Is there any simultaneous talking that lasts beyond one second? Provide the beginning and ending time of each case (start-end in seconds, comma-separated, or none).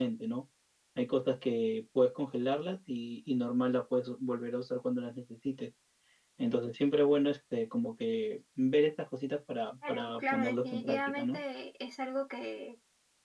9.9-11.4